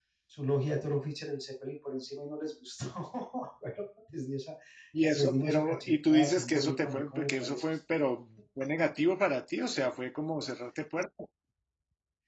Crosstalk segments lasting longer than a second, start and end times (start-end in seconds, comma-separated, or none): 5.1-7.6